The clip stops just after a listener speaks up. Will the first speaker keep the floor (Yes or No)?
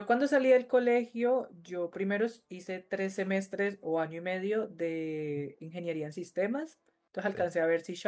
Yes